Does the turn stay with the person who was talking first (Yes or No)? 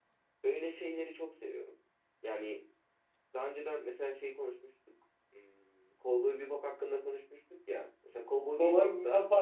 No